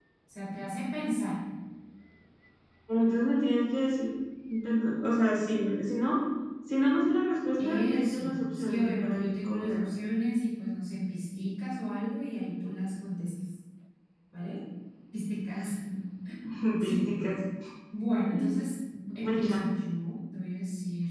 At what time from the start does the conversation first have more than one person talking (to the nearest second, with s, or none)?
8 s